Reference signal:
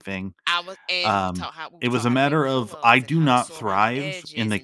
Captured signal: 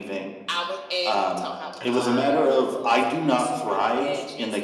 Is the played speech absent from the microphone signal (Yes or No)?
No